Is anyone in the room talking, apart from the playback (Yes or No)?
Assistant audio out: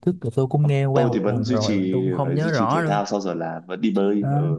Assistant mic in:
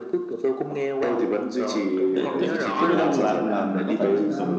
Yes